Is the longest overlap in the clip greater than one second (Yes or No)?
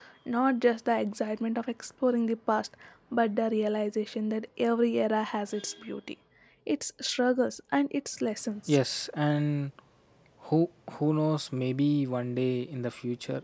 No